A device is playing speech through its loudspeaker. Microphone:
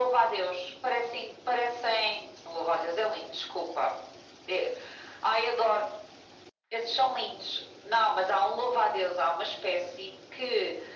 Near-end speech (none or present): none